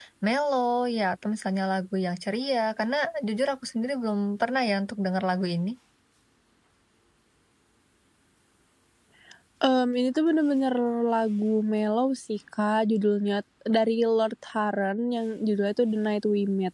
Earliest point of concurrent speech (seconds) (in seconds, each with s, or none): none